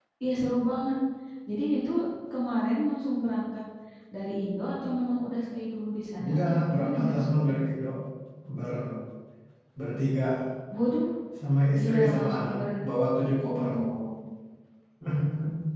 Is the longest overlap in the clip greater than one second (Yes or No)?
Yes